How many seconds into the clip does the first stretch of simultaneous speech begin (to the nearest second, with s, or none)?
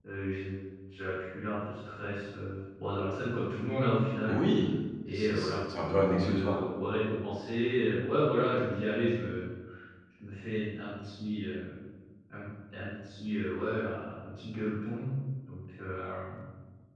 5 s